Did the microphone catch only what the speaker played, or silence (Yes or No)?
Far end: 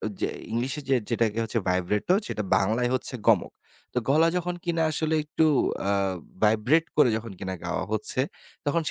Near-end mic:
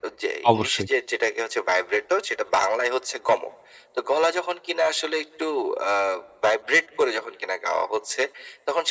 No